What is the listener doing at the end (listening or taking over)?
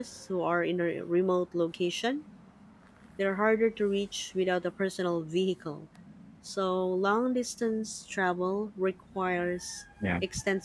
listening